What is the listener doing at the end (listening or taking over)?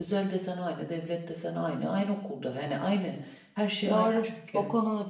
taking over